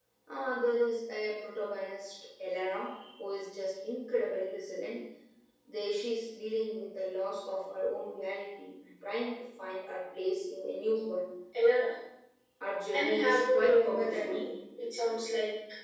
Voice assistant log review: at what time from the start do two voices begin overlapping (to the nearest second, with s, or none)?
13 s